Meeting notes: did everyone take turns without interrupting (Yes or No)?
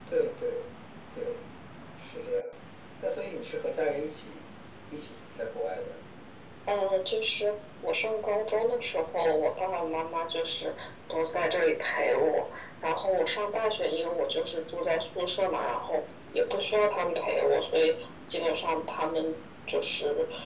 Yes